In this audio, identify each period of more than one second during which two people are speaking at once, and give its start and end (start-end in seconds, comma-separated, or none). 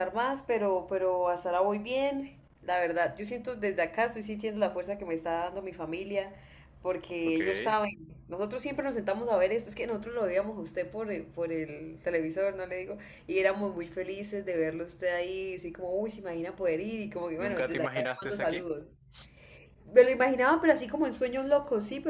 17.4-18.6